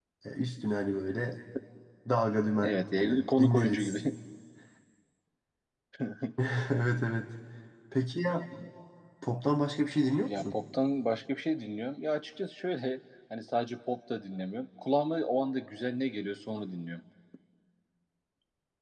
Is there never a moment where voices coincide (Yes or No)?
No